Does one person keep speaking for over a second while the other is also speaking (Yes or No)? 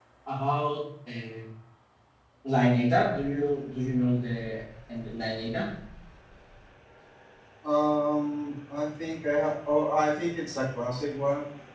No